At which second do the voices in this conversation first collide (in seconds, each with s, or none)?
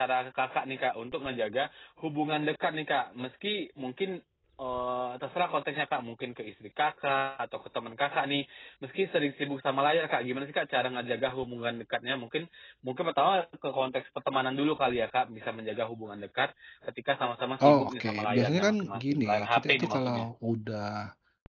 17.6 s